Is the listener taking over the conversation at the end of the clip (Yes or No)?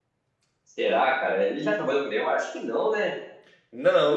Yes